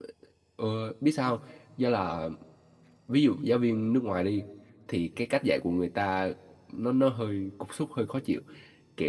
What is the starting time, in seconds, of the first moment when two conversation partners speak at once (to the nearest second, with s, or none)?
none